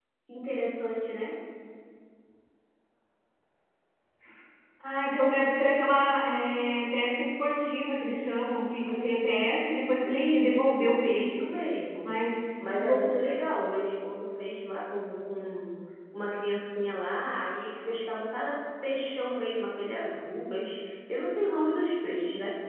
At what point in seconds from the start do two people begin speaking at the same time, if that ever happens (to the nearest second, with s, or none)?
10 s